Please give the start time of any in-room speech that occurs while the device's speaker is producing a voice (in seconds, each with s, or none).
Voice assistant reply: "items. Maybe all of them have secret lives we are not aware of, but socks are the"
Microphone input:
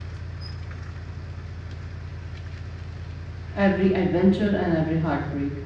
3.5 s